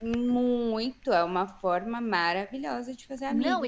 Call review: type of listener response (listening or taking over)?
taking over